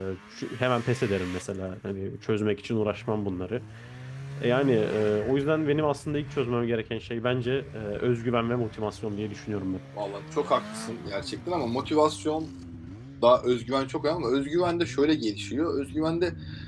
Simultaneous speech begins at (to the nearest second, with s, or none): none